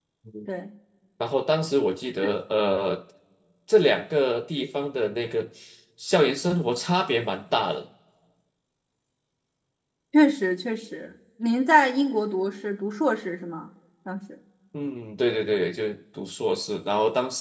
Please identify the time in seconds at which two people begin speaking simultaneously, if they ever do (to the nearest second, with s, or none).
none